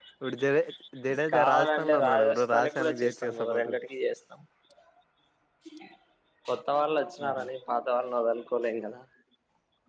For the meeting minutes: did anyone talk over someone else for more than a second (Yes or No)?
Yes